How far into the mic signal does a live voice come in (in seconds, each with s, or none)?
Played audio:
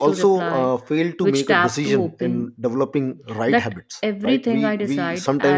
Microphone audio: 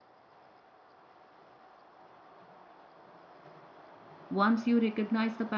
4.3 s